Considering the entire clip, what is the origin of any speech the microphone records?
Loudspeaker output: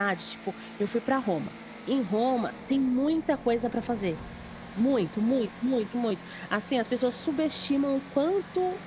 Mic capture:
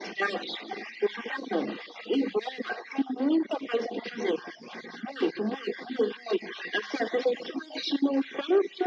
echo only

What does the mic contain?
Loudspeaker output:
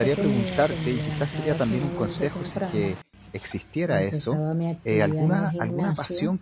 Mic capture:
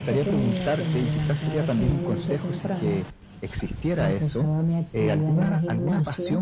echo only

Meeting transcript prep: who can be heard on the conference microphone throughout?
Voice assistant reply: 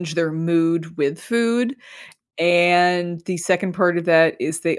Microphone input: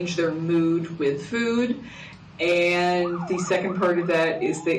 echo only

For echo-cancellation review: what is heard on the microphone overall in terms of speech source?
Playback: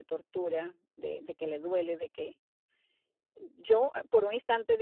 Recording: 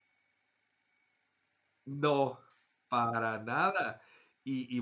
user only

